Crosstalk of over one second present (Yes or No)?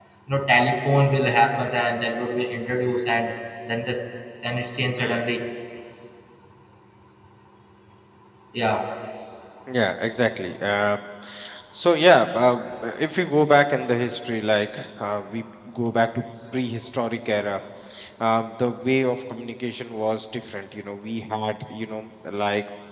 No